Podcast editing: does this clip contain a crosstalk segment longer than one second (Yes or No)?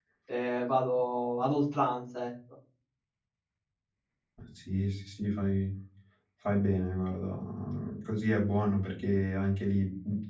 No